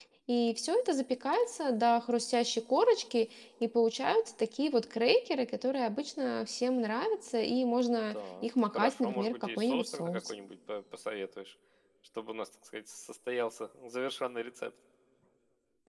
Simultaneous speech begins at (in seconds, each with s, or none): 8.1 s